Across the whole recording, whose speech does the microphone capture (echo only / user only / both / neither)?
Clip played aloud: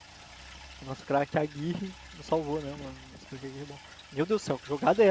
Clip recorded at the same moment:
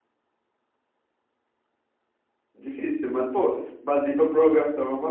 user only